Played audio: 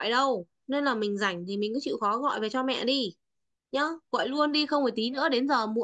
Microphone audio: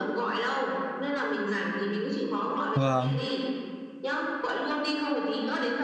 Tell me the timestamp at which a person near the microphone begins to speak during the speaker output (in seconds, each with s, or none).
2.7 s